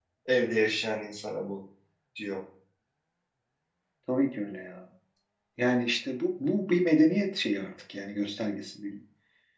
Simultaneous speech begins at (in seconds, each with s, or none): none